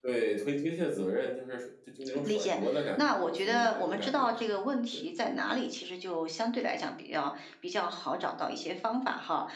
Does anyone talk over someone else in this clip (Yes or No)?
Yes